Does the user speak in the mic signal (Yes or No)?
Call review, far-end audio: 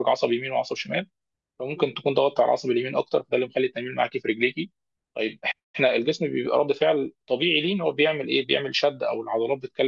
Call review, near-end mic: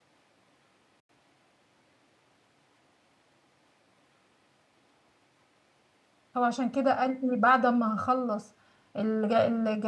Yes